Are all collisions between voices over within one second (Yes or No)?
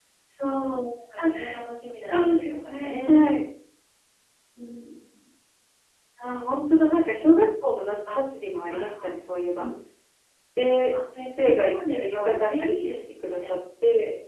No